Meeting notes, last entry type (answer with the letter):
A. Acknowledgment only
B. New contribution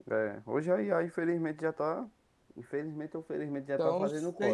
B